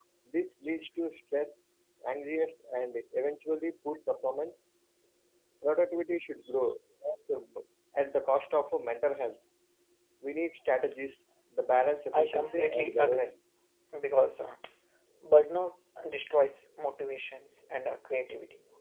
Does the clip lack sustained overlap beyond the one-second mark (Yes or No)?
No